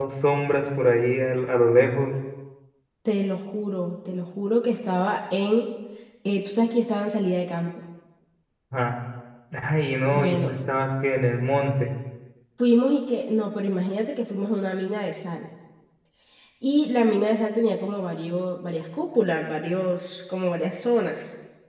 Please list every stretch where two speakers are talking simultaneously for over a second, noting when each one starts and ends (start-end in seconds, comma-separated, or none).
none